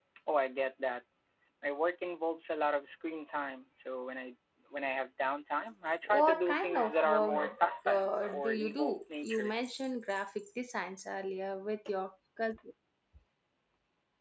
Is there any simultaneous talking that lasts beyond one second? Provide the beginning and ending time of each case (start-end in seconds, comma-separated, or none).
6.0-7.4, 7.9-9.5